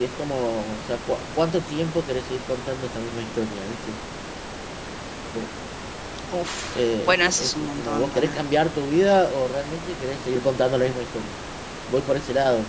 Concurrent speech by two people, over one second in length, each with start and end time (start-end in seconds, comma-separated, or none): 6.7-8.4